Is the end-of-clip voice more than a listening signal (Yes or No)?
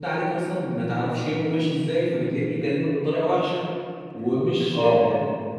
No